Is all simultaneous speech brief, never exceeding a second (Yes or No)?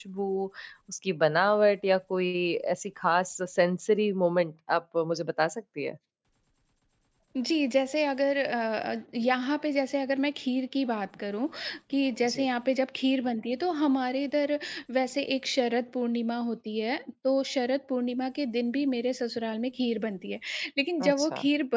Yes